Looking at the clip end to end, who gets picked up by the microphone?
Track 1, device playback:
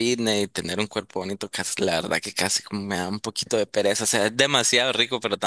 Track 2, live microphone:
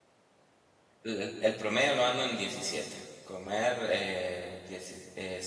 user only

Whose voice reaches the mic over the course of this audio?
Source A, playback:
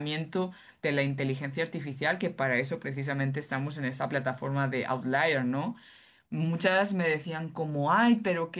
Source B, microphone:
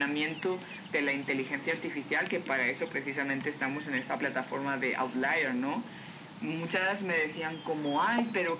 echo only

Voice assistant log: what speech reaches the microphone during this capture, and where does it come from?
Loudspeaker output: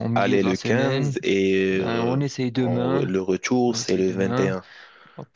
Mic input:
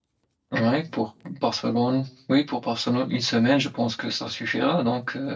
user only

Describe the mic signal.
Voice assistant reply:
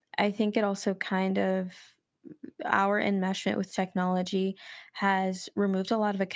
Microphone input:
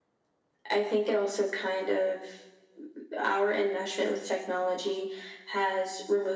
echo only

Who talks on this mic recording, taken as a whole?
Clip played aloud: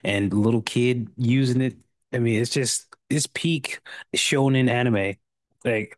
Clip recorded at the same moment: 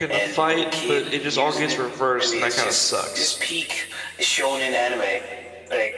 both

